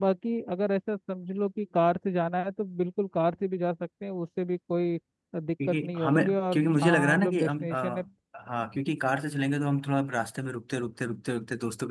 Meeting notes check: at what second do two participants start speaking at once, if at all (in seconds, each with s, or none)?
5.6 s